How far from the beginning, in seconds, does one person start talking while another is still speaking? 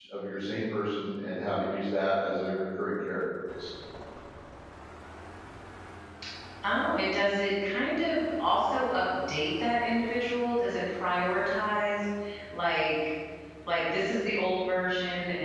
none

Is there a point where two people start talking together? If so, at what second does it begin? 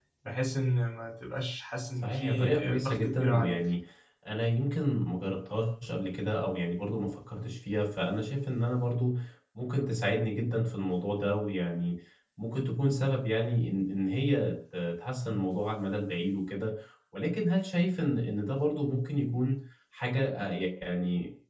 2 s

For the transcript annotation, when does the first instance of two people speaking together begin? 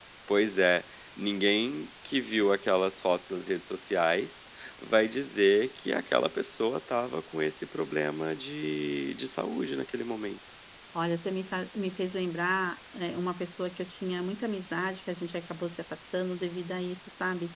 none

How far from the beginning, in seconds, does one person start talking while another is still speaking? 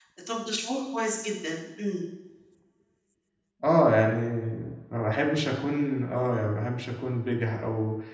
none

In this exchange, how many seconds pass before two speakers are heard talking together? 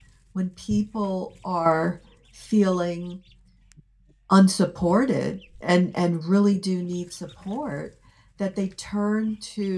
none

